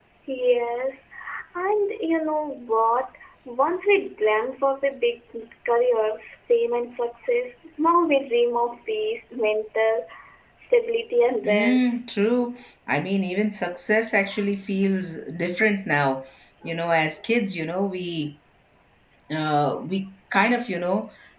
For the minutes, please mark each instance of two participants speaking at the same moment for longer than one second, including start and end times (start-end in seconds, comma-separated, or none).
none